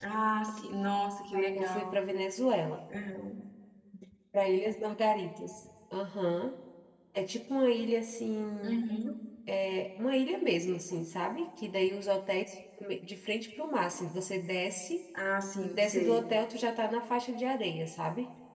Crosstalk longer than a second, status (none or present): none